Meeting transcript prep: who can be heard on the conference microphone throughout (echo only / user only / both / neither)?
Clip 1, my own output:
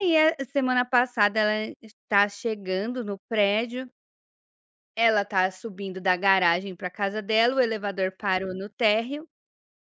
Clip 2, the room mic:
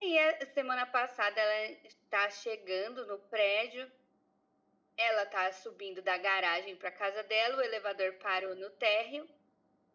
echo only